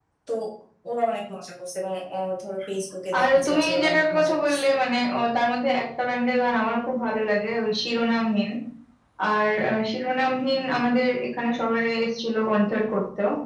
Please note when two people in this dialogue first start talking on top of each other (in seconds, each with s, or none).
3.1 s